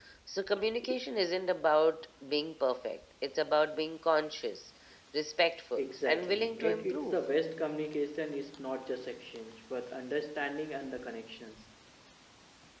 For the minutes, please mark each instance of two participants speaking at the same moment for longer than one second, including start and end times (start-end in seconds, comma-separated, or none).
5.8-7.2